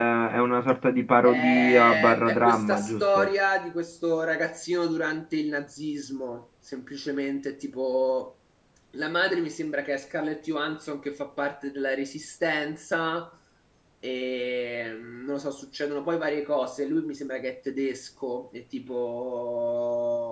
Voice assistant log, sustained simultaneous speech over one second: present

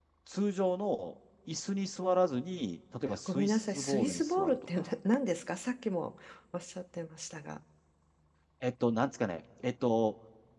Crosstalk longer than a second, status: present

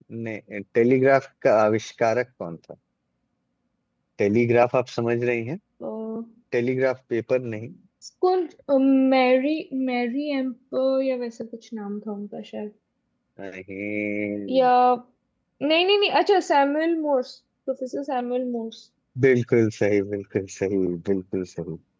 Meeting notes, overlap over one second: none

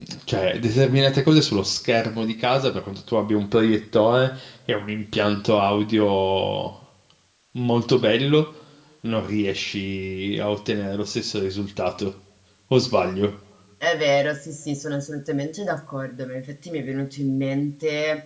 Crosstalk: none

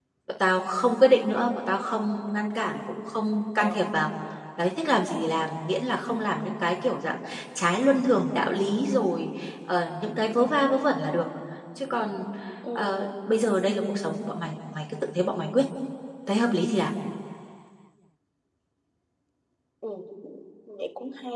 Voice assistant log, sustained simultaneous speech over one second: none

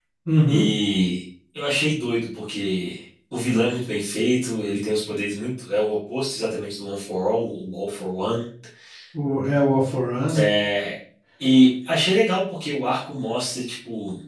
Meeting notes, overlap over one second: none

